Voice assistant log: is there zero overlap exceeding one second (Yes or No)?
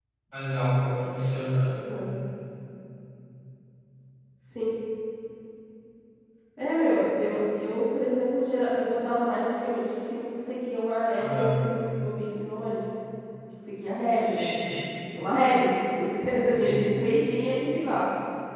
Yes